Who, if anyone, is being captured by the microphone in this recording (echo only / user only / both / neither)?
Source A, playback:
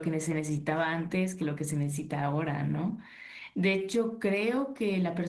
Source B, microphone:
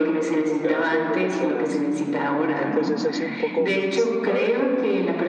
both